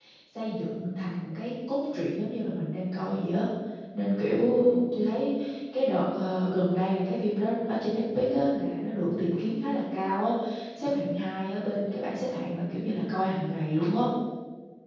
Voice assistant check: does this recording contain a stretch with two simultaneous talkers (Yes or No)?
No